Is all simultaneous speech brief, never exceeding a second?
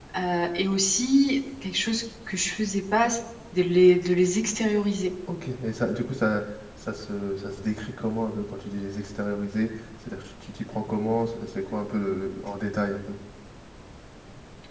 Yes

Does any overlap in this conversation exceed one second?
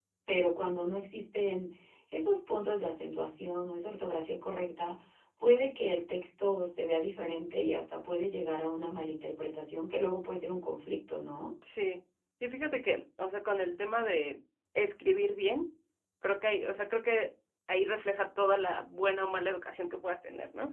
No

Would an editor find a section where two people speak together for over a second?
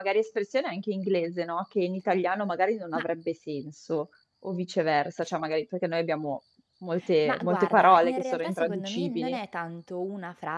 Yes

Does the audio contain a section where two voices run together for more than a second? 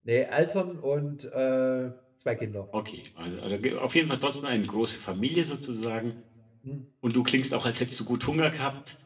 No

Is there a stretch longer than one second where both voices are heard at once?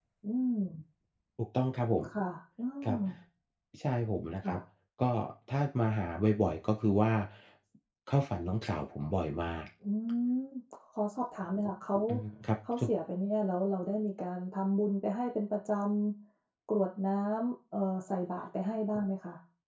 No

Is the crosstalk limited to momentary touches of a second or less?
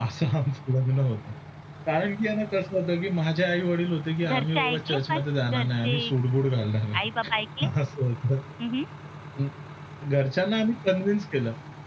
No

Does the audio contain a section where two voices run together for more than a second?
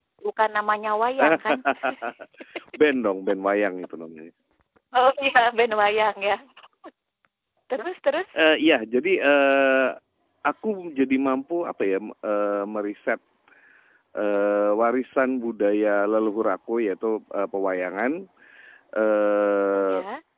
No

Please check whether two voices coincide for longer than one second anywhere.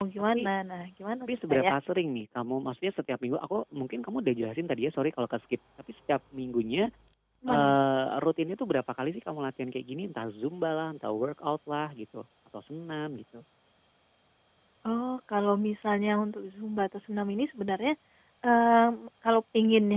No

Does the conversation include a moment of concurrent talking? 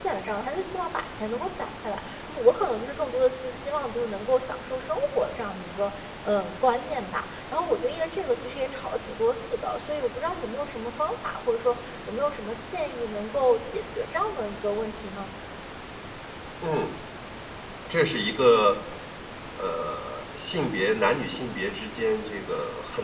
No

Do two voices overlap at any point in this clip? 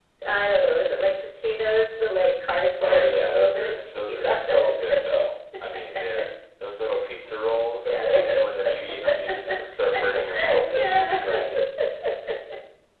Yes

